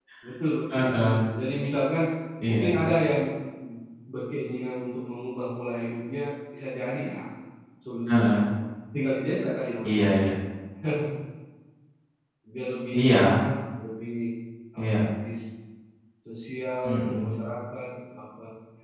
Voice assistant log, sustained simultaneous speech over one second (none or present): none